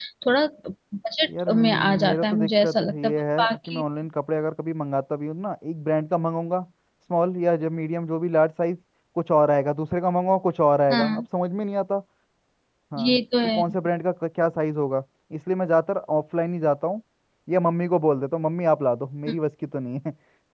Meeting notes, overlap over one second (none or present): present